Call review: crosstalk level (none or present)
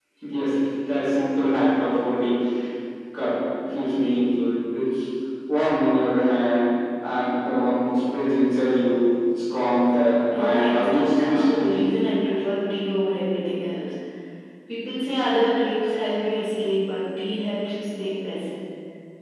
present